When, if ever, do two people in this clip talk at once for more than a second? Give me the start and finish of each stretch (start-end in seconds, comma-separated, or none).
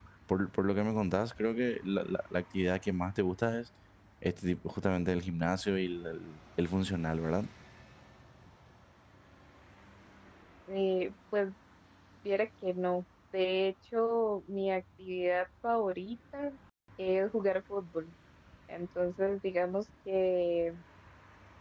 none